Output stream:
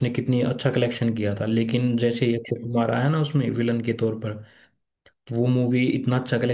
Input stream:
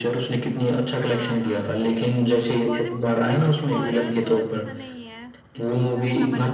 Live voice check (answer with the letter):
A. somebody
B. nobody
A